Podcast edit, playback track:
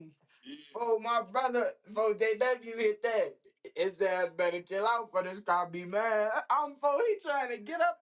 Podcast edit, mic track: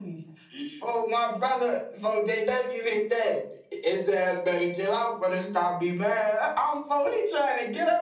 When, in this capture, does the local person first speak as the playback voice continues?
none

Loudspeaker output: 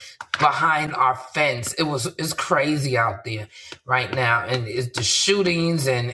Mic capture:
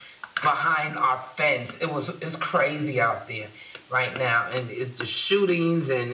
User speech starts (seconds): none

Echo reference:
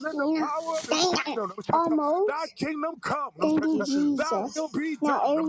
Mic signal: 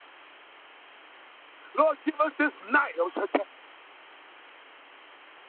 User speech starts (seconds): 1.7 s

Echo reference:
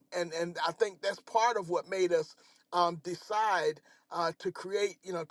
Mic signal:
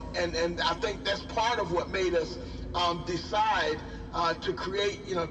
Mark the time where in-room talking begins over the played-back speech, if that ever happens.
none

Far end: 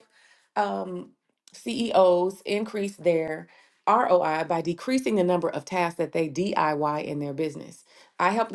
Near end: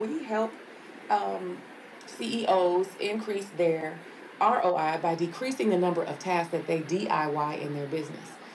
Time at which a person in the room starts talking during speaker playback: none

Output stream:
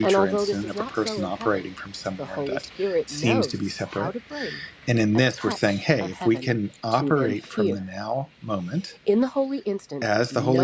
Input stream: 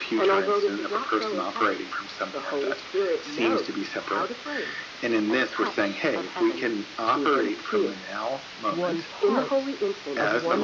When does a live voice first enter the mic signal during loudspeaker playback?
8.7 s

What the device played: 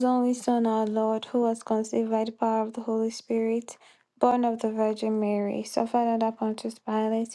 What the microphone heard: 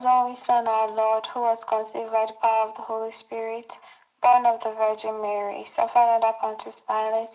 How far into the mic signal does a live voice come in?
none

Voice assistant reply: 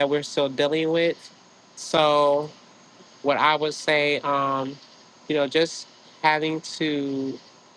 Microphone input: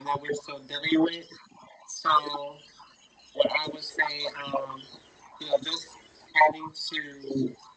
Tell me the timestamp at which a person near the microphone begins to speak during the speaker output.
none

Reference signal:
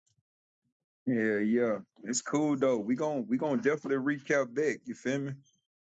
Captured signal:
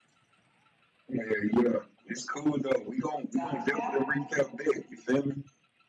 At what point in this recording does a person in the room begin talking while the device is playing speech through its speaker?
3.3 s

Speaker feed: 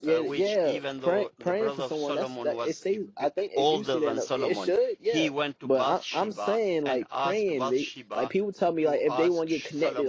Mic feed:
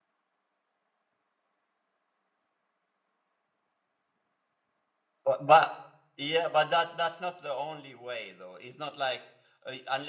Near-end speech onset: 5.2 s

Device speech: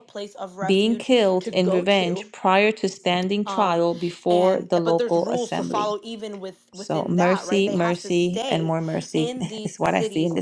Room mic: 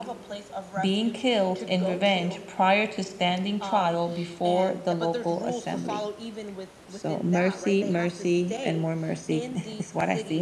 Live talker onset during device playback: none

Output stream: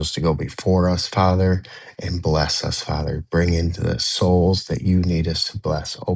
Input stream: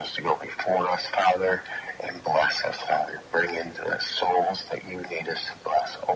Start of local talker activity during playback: none

